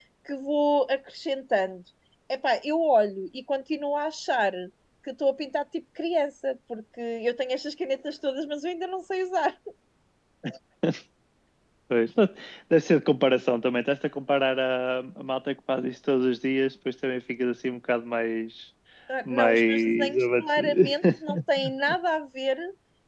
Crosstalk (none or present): present